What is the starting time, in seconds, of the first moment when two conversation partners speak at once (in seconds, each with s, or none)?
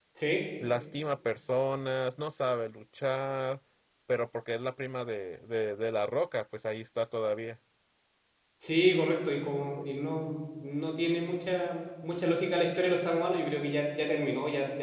none